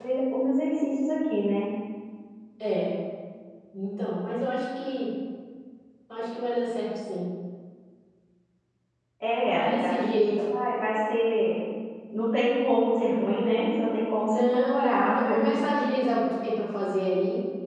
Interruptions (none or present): present